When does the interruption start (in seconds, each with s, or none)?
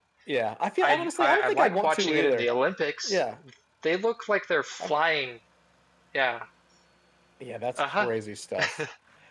0.8 s